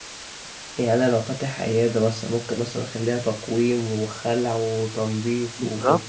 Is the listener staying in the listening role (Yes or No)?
No